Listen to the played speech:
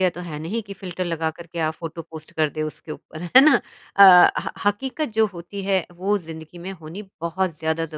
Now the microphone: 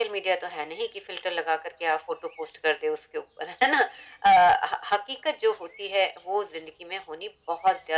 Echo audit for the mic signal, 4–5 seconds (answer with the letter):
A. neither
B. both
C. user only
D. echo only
D